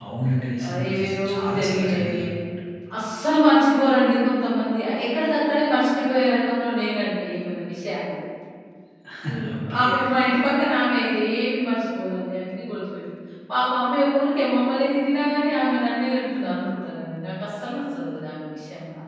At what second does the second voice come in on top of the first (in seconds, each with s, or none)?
0.7 s